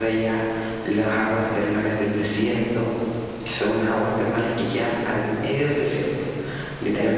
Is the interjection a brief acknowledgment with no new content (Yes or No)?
No